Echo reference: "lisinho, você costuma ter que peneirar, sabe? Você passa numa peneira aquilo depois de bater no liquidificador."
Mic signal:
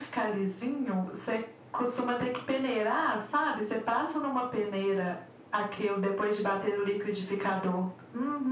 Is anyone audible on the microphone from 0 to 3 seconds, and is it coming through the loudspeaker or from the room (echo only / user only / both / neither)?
echo only